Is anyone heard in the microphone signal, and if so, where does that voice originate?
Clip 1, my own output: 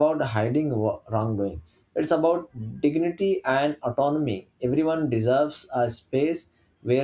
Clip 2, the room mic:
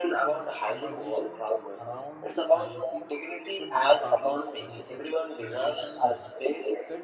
both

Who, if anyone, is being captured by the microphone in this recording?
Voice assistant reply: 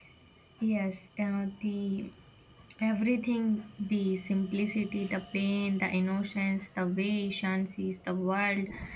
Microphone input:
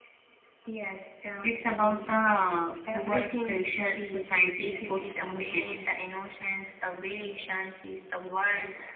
both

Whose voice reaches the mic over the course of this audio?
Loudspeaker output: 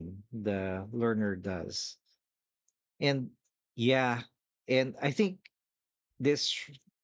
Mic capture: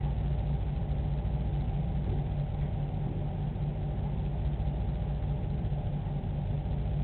neither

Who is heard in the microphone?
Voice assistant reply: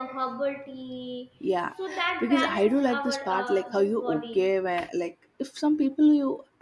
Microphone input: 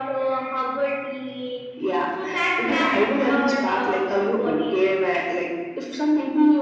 echo only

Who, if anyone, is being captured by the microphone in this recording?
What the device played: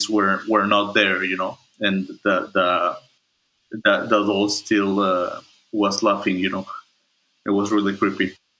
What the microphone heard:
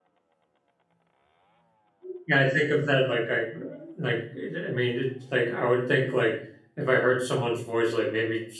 user only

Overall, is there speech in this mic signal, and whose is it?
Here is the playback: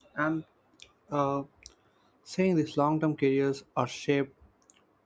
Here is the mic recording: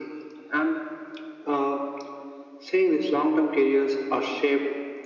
echo only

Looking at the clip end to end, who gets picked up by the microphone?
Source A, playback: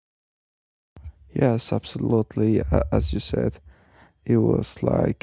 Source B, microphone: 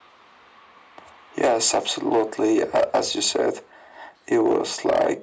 echo only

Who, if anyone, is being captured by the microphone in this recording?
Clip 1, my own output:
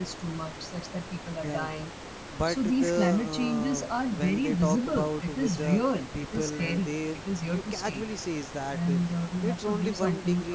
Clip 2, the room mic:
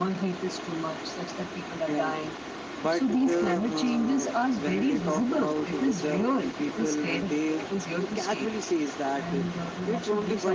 both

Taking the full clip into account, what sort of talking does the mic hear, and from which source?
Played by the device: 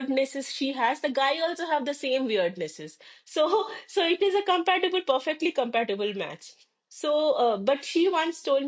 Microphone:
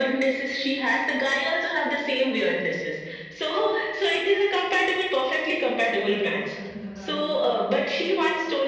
both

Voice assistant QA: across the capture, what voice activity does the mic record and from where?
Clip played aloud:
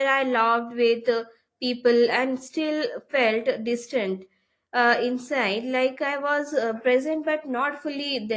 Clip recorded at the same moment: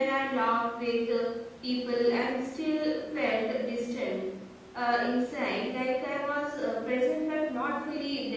echo only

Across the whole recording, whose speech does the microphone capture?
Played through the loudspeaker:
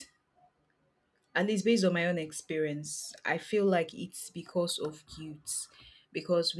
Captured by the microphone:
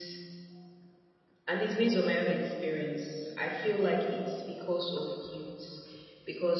echo only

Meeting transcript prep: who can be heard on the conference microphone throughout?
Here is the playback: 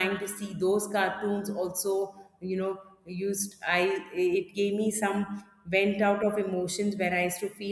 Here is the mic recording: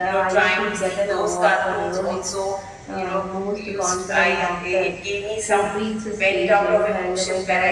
both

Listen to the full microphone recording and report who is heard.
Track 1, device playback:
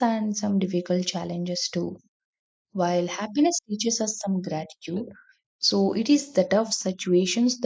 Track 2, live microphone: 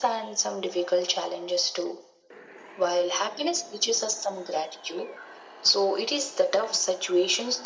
echo only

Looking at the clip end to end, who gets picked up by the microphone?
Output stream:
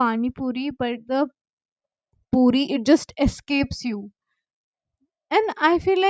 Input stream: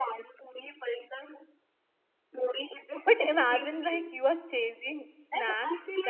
both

